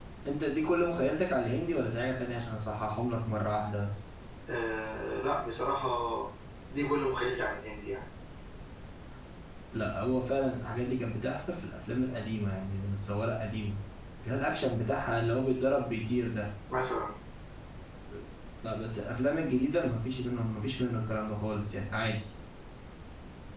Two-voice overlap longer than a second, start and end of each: none

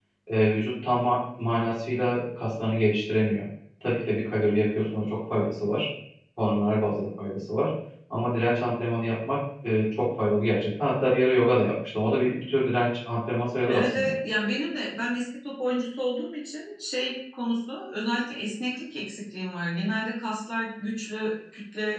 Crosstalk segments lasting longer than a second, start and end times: none

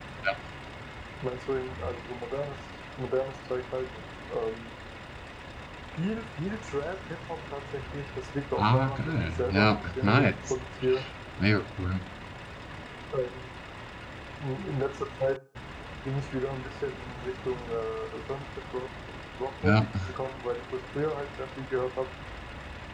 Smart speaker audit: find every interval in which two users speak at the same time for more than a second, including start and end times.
8.6-10.3

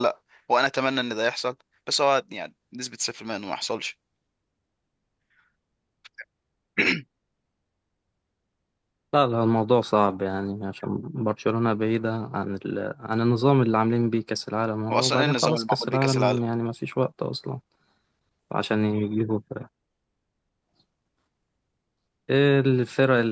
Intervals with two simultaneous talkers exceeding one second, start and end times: 14.9-16.4

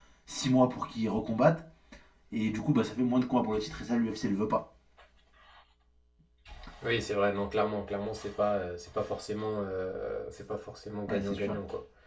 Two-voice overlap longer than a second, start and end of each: none

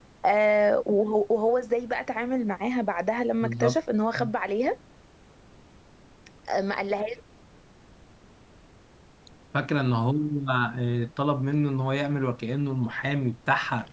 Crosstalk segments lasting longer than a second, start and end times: none

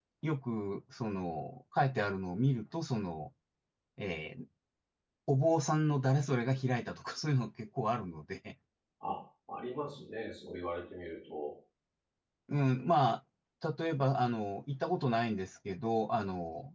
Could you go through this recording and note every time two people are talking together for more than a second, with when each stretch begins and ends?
none

